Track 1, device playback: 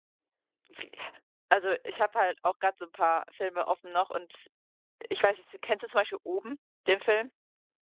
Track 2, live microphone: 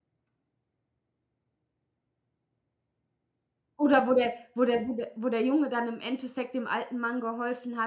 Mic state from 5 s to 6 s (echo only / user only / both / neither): user only